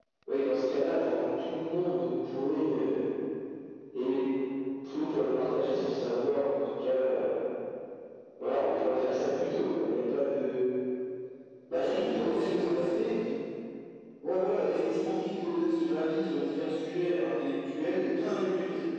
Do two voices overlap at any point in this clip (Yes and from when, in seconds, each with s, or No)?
Yes, from 11.7 s